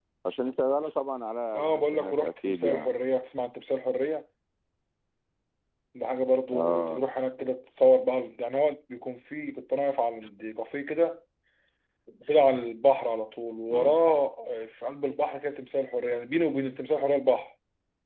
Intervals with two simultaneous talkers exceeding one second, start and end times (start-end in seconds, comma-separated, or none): 1.5-2.9